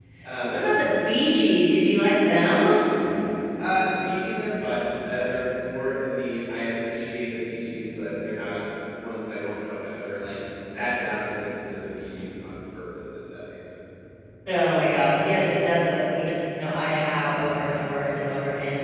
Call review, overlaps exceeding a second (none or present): none